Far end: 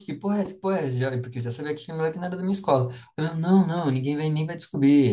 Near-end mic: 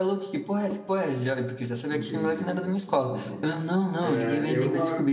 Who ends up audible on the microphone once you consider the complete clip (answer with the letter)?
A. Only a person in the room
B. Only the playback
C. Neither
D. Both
D